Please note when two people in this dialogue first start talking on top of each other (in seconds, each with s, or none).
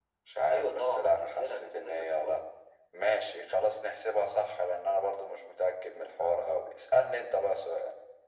0.5 s